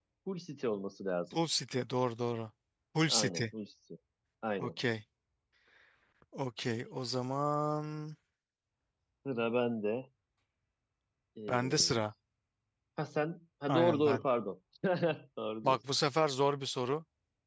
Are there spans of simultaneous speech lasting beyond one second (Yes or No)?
No